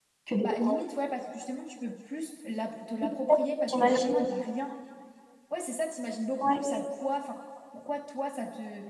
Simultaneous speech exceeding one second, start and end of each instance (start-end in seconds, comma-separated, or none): none